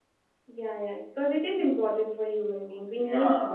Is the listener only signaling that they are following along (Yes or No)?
No